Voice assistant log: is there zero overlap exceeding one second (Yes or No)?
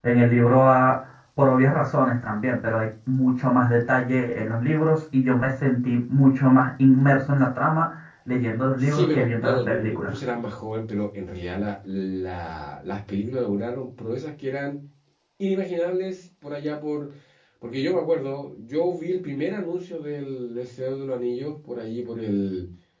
No